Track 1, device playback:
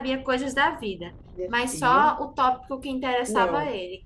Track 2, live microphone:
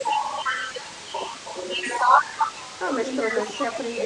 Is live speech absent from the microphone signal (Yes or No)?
No